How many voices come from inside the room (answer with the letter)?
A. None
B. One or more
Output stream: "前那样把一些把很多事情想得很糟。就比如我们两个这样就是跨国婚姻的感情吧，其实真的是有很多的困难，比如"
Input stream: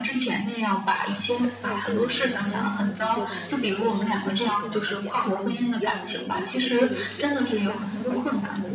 B